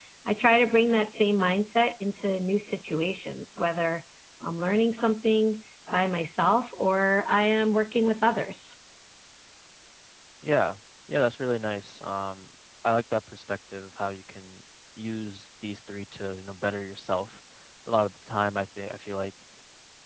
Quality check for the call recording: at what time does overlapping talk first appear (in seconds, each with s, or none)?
none